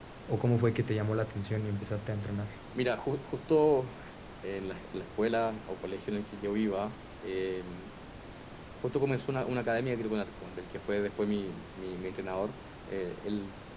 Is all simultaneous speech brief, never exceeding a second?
Yes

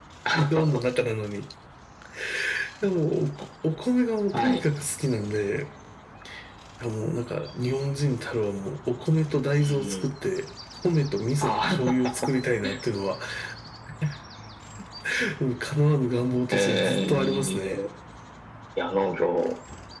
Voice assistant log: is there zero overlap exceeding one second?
No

